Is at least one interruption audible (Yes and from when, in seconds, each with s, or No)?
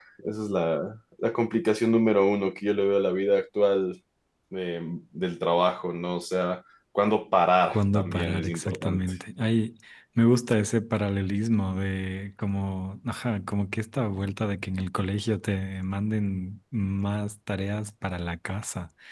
Yes, from 7.7 s